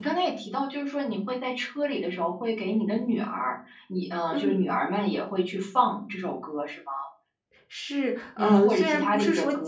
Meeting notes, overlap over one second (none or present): present